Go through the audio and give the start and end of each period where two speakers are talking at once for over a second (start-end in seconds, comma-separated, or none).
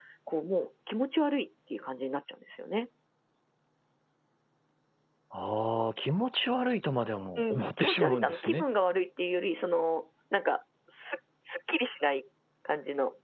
7.4-8.6